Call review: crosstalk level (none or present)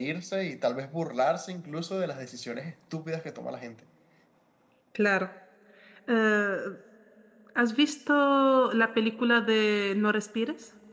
none